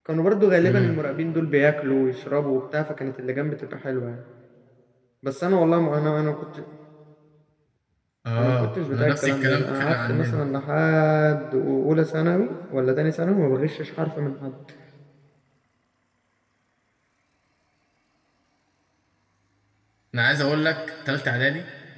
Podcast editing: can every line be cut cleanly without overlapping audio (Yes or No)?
No